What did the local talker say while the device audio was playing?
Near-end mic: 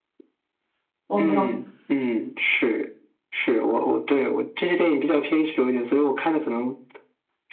我没有，

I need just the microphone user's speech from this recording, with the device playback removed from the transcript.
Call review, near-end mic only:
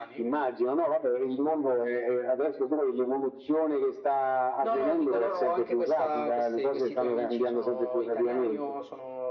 none

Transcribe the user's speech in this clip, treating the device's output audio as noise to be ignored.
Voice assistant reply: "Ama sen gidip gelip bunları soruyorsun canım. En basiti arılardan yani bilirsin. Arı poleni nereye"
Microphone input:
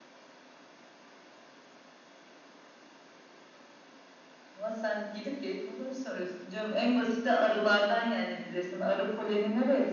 none

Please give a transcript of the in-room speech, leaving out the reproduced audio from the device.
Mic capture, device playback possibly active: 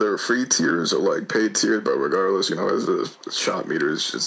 none

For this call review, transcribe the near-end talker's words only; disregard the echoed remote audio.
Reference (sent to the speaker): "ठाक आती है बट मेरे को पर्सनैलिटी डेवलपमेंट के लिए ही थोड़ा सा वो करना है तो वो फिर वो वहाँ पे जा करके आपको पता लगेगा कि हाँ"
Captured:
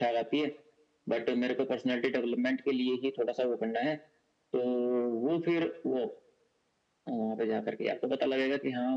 none

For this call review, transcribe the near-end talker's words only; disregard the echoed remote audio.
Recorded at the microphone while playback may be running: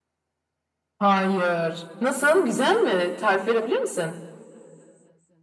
none

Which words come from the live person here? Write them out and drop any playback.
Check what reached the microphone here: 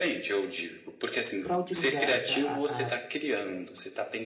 para utilizar essa a, a

